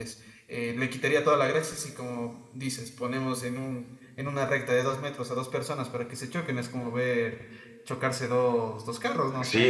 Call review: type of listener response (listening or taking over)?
taking over